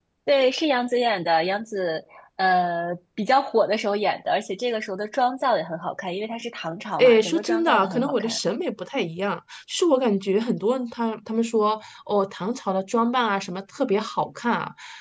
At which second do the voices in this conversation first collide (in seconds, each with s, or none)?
7.0 s